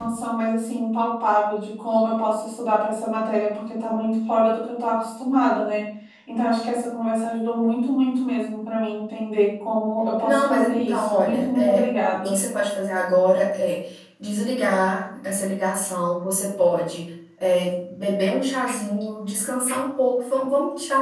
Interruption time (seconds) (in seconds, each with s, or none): 10.2 s